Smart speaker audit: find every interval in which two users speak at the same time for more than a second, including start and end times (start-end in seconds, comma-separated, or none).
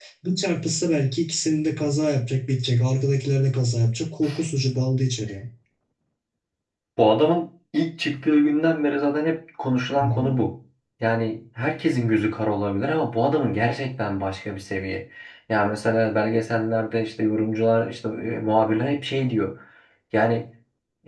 none